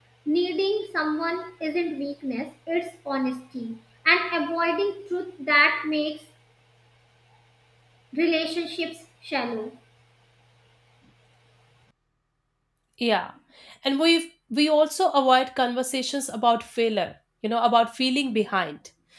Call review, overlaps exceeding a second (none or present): none